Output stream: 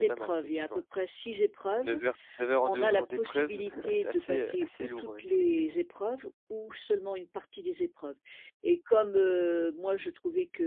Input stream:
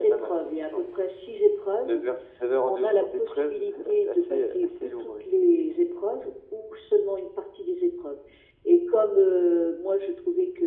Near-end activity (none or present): none